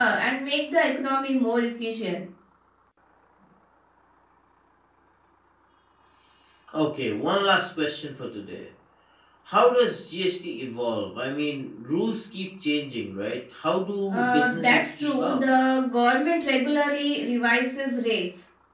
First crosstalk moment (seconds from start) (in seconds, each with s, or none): 14.1 s